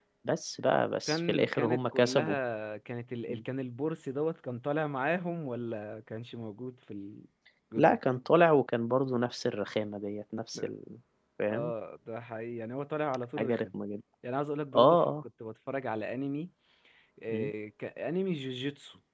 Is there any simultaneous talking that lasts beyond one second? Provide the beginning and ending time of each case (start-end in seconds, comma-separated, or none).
1.1-2.4